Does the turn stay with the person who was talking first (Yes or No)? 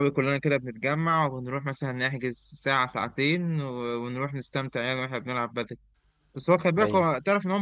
Yes